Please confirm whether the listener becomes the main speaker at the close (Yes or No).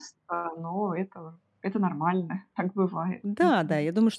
Yes